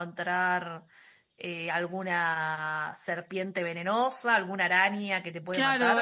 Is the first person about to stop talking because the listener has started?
Yes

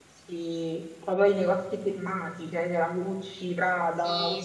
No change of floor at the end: No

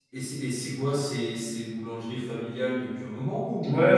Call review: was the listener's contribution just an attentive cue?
No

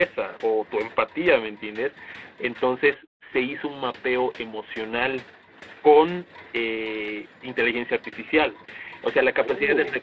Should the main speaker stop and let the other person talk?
No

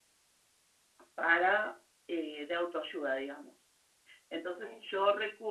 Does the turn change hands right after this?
No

